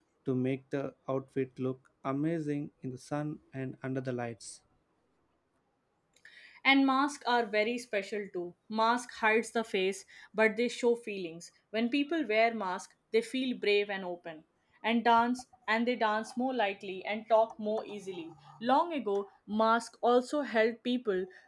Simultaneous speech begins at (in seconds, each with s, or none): none